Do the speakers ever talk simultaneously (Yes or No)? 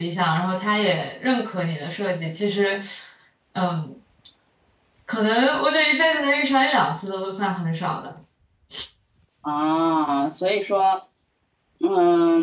No